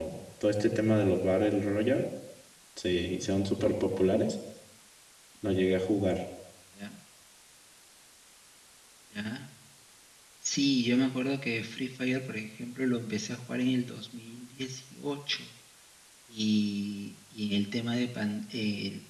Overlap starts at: none

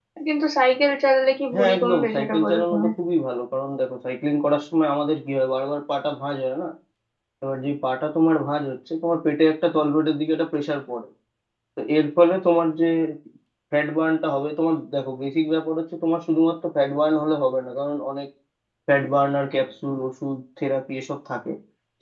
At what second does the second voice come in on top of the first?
1.5 s

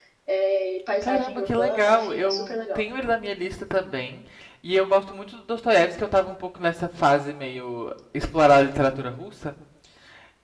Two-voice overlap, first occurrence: 1.0 s

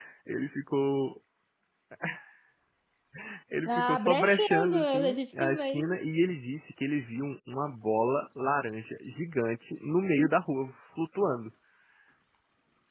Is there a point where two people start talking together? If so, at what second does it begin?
3.7 s

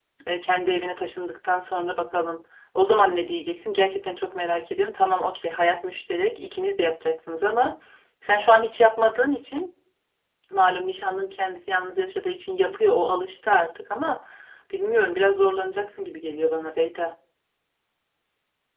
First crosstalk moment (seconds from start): none

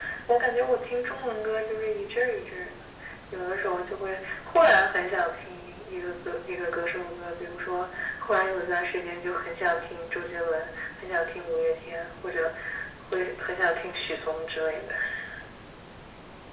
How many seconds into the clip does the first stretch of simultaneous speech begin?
none

